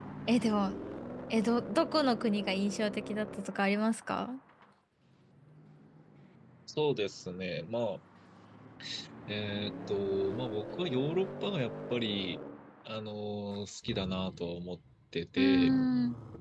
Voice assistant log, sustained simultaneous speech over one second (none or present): none